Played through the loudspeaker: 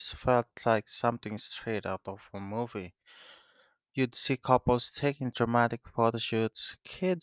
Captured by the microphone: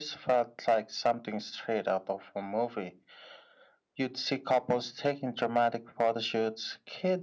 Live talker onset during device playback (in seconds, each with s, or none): none